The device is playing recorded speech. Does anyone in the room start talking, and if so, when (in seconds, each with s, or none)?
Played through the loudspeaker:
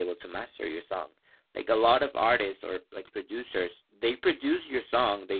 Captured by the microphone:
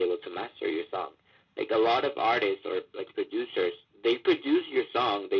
none